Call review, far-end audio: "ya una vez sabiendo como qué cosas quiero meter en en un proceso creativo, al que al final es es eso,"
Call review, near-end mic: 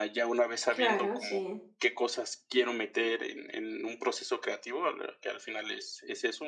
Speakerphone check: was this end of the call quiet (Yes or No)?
No